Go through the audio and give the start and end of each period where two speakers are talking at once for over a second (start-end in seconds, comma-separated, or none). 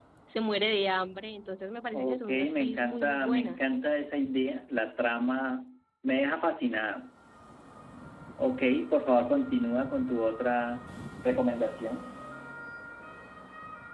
1.9-3.6